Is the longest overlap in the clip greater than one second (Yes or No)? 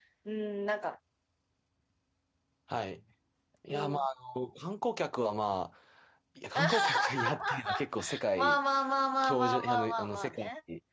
Yes